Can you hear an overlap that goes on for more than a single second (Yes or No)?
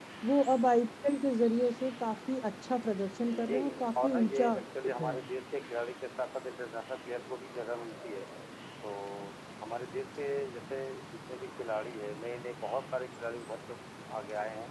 Yes